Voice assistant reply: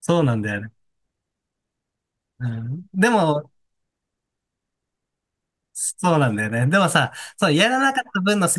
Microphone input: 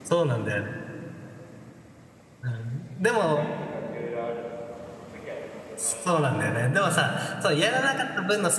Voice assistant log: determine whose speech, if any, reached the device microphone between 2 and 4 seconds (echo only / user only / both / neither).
both